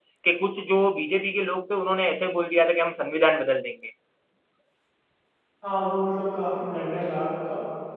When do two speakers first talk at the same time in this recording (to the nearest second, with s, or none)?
none